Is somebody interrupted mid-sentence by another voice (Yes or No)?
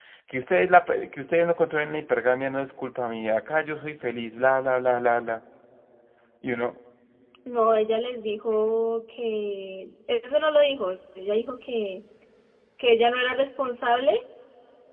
No